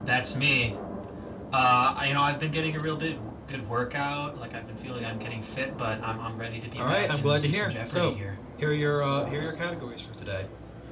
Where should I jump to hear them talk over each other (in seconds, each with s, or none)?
6.8 s